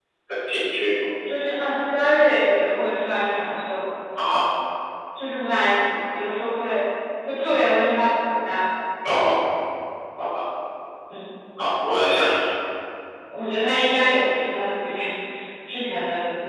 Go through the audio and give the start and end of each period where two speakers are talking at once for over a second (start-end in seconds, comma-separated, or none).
none